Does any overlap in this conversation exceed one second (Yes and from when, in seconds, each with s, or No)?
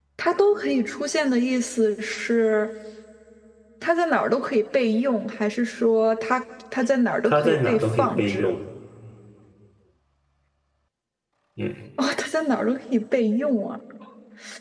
Yes, from 7.2 s